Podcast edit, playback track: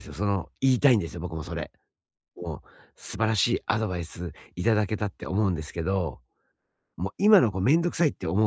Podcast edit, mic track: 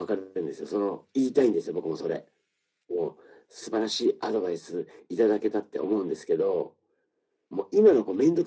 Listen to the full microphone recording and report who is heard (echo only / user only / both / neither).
echo only